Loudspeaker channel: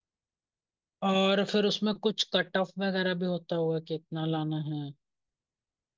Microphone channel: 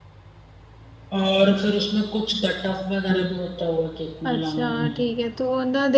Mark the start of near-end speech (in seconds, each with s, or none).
4.3 s